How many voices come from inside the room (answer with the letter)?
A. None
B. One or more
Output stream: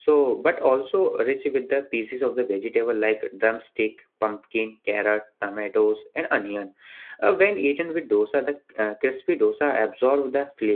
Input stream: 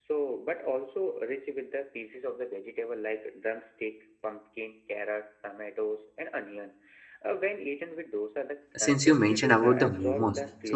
B